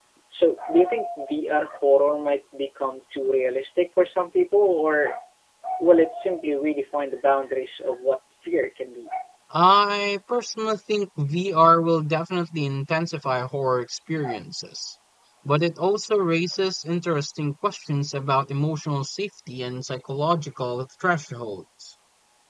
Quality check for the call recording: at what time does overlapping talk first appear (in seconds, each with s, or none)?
none